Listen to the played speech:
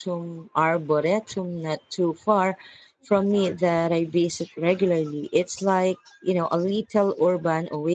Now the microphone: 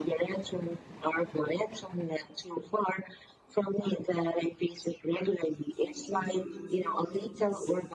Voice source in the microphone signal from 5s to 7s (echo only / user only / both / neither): both